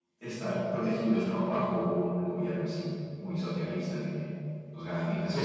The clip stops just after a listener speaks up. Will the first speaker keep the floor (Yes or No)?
No